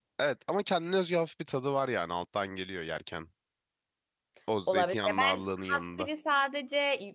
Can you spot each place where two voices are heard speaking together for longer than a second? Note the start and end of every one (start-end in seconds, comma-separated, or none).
4.7-6.1